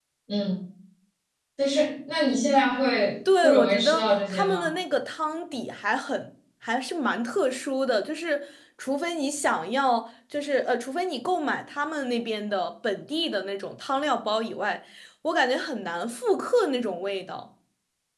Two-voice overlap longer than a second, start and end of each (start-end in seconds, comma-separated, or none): 3.4-4.7